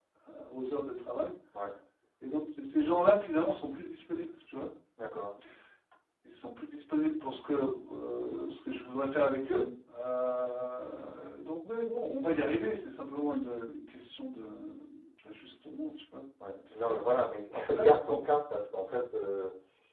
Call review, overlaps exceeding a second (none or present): none